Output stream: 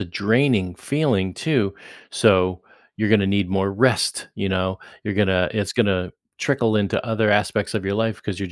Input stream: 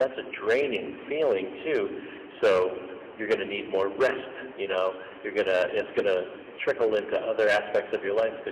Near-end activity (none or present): none